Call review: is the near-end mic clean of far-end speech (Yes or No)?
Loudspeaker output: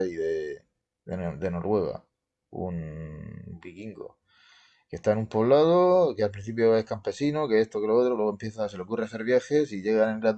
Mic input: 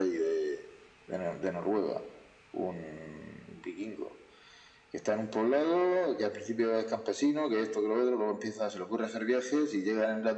No